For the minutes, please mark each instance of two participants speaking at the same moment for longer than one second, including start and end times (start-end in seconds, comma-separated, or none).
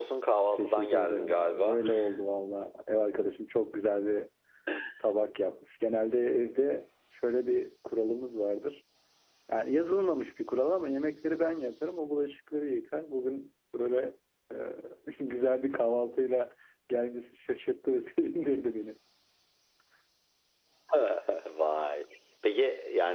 0.5-1.8